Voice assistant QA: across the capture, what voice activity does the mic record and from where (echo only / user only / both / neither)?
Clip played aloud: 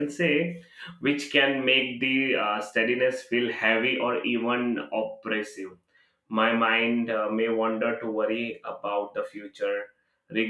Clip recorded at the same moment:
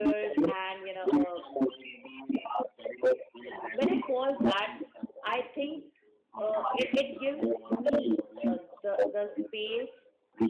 both